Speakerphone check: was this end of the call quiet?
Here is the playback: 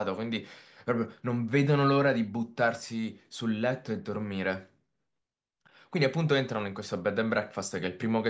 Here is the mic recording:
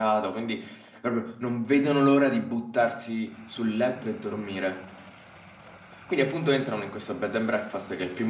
Yes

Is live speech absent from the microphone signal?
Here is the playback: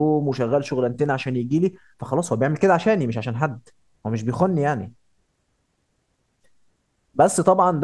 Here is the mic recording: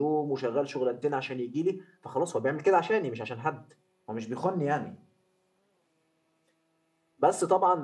Yes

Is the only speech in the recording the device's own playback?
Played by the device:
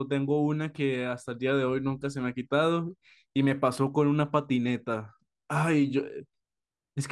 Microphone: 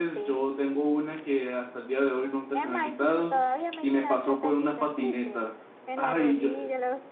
No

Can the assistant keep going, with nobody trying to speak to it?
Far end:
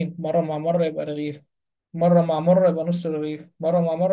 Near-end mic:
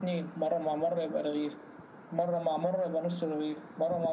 Yes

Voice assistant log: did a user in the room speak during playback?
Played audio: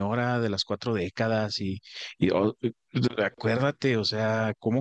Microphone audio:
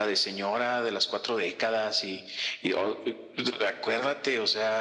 No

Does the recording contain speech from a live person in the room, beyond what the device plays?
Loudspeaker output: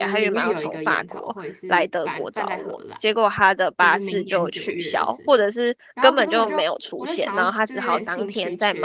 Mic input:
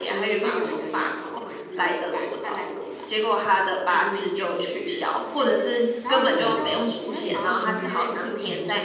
Yes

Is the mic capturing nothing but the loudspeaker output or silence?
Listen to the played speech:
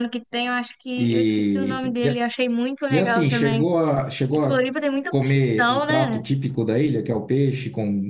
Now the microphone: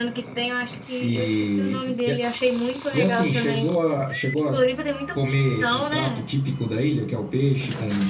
Yes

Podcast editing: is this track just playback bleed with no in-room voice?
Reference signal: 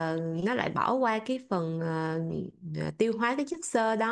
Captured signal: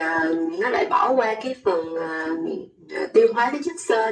Yes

